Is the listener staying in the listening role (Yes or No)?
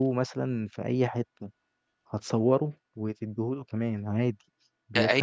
No